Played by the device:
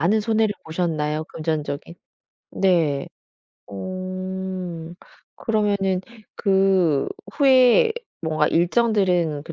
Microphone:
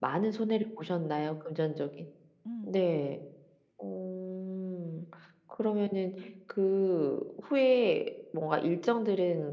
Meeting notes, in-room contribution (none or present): present